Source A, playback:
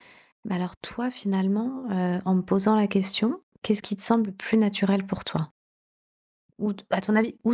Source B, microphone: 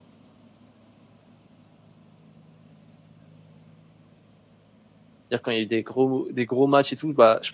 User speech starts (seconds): 5 s

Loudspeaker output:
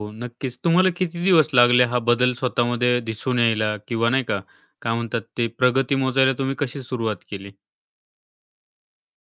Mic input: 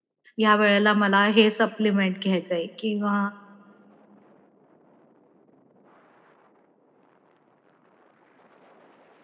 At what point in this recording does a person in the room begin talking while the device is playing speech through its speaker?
0 s

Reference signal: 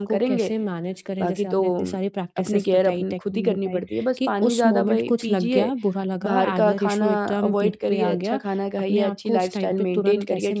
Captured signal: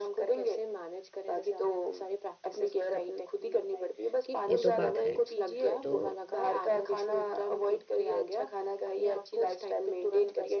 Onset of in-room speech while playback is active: 4 s

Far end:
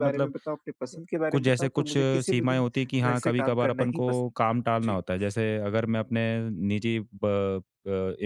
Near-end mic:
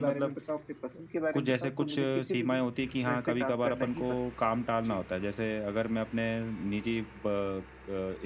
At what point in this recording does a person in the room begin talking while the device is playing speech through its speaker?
none

